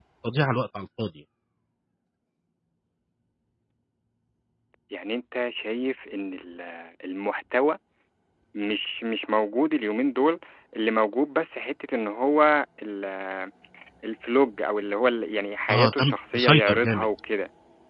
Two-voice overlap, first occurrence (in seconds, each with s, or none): 15.7 s